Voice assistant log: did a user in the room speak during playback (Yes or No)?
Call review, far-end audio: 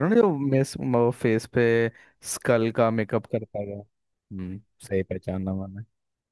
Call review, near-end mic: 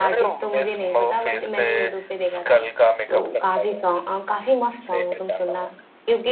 Yes